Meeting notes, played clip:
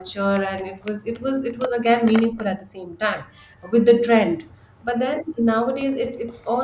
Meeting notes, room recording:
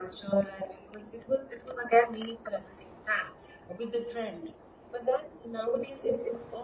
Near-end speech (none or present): none